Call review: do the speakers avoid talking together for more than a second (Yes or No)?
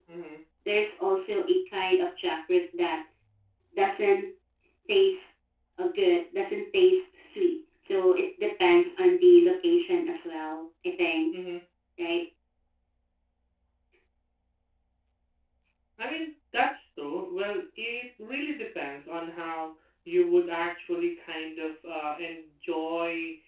Yes